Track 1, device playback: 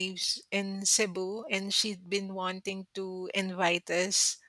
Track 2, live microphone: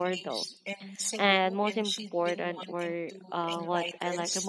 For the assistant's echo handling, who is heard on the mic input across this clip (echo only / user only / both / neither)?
both